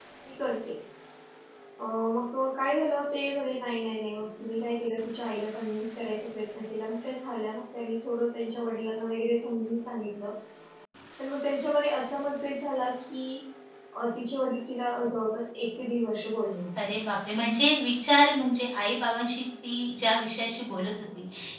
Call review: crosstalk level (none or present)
none